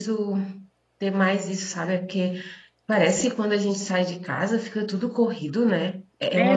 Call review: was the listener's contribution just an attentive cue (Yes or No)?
No